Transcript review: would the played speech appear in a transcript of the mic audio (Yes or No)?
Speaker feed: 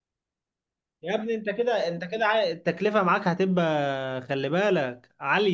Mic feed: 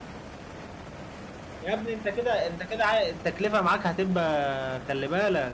Yes